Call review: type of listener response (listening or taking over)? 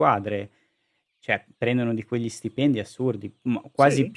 listening